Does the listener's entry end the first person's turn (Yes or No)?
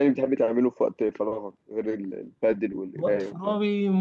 Yes